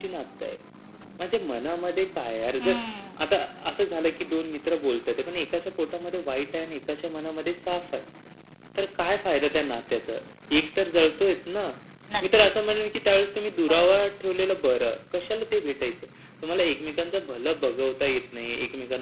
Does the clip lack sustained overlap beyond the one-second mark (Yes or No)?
Yes